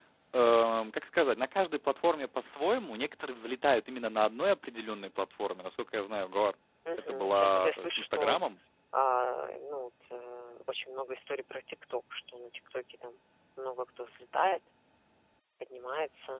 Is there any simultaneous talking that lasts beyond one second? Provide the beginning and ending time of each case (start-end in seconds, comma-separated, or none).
7.1-8.4